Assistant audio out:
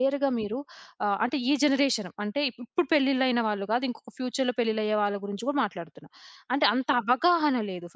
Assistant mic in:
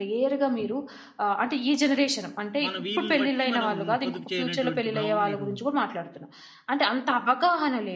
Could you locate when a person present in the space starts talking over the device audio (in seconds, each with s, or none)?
2.6 s